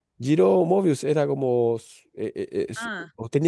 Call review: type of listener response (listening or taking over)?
taking over